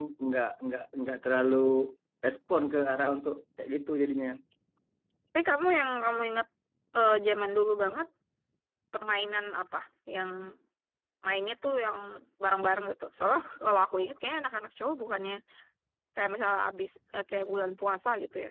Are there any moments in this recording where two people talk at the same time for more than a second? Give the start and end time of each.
none

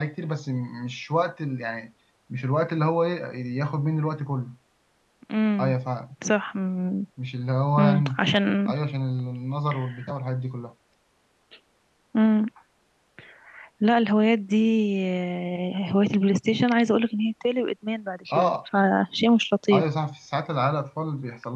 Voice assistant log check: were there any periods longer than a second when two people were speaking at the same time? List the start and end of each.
none

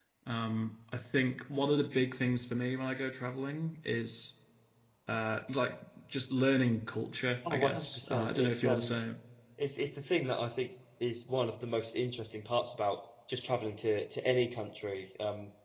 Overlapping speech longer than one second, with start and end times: 7.5-8.9

